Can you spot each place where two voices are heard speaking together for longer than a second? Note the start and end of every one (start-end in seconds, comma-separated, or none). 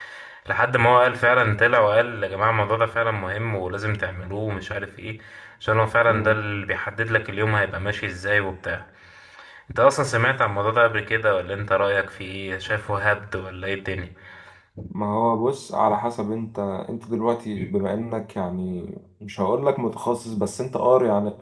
none